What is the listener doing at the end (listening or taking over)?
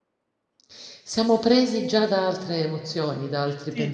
taking over